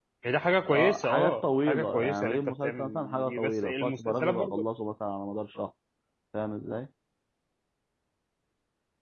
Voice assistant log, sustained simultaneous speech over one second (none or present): present